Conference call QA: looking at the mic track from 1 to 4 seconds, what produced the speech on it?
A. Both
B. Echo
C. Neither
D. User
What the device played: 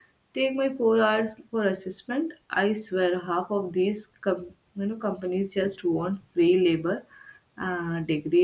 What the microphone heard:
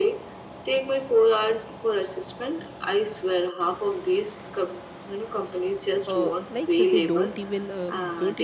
B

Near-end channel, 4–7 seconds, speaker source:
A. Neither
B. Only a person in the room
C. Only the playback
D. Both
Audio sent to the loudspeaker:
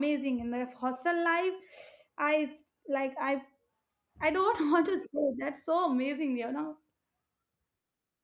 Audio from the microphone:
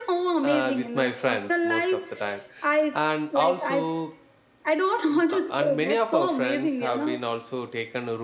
D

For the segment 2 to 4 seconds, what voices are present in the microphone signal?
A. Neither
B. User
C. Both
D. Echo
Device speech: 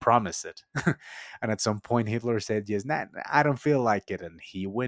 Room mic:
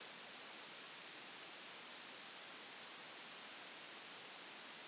A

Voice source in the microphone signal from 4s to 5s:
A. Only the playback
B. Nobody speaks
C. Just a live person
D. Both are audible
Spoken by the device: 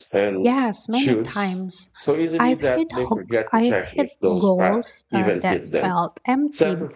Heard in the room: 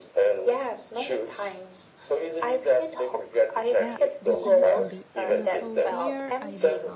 D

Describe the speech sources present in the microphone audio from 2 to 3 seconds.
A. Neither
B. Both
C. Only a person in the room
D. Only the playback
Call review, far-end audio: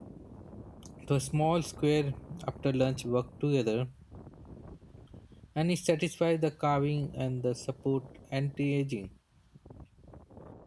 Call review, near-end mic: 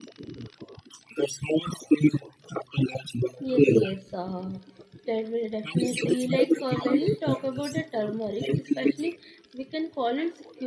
D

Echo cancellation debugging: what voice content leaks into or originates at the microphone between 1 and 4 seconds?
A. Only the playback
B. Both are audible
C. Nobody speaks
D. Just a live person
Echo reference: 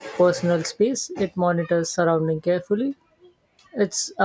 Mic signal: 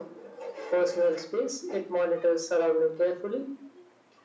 A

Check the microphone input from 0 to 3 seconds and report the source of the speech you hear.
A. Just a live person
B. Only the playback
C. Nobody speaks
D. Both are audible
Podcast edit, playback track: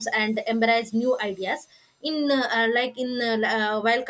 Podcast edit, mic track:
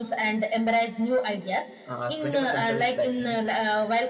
D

